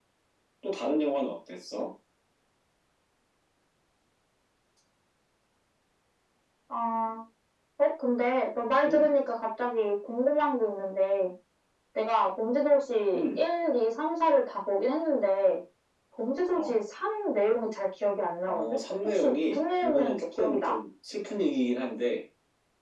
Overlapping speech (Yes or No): Yes